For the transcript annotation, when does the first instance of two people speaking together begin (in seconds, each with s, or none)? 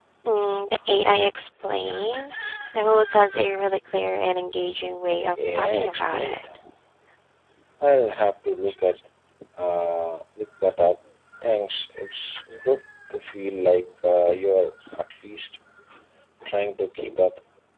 5.2 s